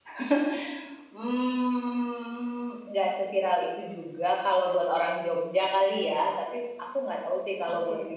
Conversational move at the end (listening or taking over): listening